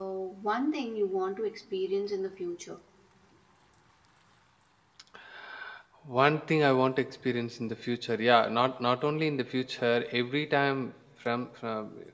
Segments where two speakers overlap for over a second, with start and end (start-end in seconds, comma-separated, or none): none